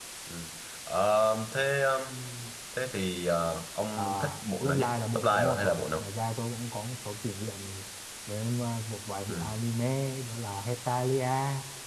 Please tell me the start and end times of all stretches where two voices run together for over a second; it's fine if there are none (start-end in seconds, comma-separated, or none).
4.6-6.1